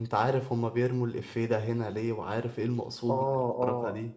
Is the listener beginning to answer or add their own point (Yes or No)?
Yes